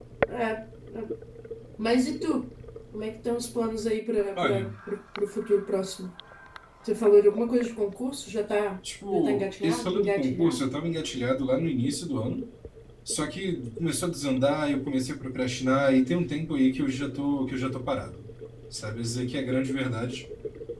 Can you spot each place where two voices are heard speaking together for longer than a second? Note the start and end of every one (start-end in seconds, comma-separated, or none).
9.1-10.6